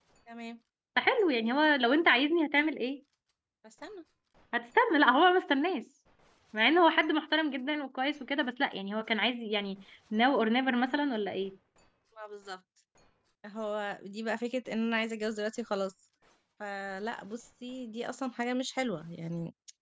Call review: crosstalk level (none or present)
none